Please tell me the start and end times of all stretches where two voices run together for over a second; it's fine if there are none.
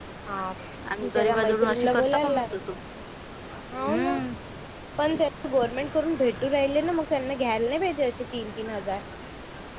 1.0-2.5

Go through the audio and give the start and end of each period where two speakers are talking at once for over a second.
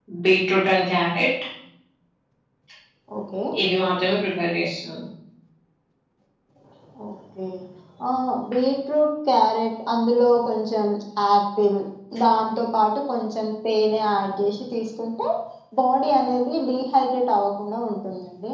none

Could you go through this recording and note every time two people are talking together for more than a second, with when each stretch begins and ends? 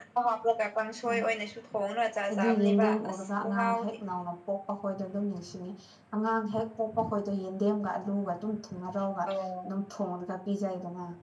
2.3-3.9

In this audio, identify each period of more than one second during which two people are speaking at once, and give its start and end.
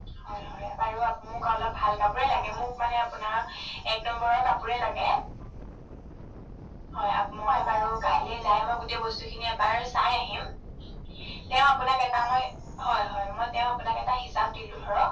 7.5-9.0

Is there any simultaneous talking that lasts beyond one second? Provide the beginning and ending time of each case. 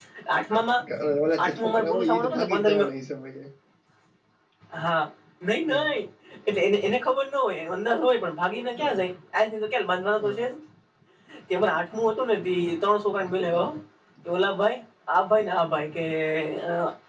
1.4-2.8

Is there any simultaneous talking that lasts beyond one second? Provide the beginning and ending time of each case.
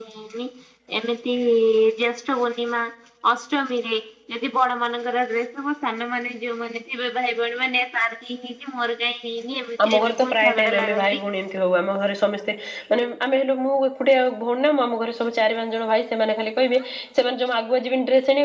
9.8-11.2

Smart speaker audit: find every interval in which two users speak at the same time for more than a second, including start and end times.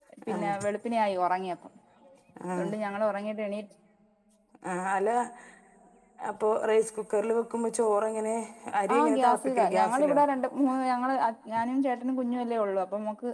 8.9-10.2

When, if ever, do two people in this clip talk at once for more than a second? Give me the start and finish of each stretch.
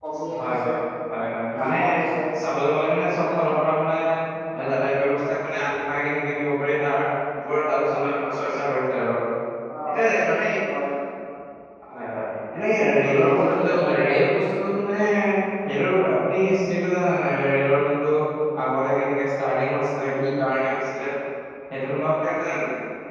12.7-14.2

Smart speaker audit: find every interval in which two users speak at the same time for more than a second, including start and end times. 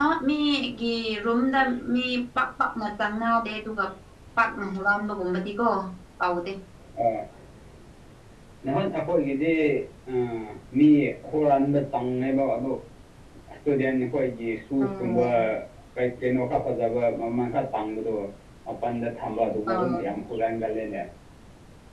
none

